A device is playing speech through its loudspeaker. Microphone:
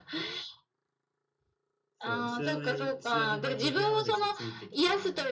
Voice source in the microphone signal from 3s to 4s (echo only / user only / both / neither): both